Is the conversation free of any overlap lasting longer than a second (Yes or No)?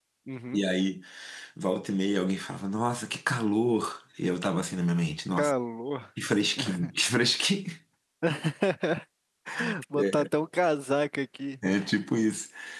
Yes